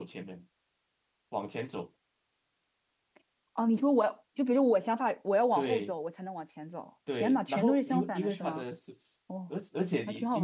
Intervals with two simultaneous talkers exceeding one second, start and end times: 7.2-8.6

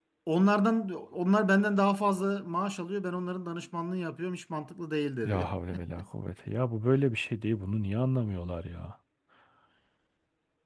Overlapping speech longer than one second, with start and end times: none

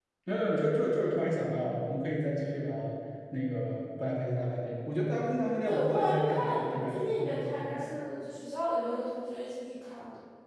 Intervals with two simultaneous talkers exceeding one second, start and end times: 5.7-8.0

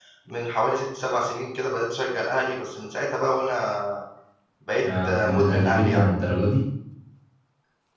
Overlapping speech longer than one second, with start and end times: 4.8-6.1

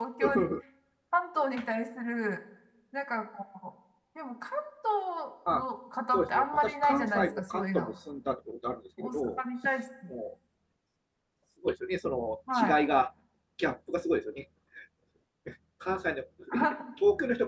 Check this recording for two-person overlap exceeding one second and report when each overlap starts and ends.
6.1-7.9

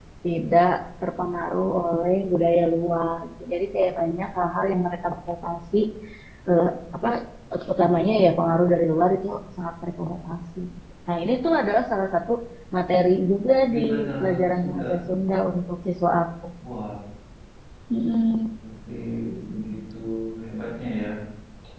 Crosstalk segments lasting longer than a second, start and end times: 13.7-14.9

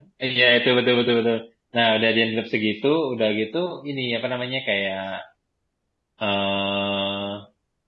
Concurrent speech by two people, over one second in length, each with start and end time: none

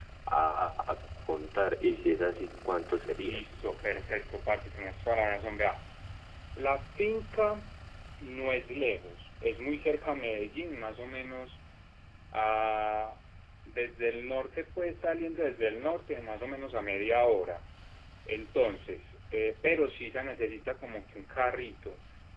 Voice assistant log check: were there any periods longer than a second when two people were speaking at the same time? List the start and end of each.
none

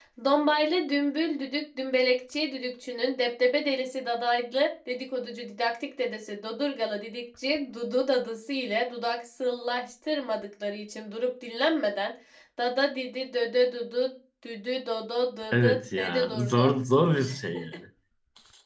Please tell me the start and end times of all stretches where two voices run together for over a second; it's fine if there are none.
15.5-16.7

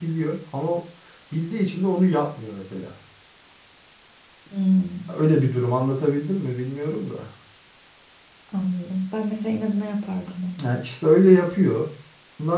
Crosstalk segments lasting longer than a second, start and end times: none

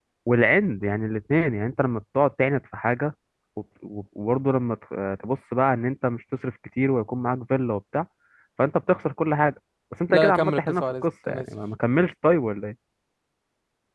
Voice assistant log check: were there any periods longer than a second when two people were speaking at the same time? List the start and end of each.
10.1-11.4

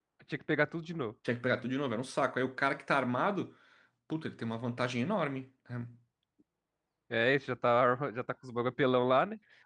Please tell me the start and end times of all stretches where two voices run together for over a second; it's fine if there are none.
none

